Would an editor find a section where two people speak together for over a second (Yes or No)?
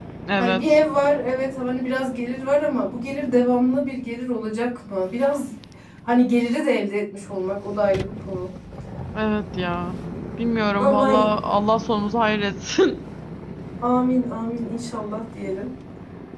No